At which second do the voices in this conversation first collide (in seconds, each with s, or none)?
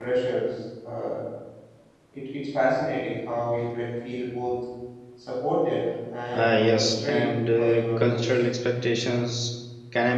6.3 s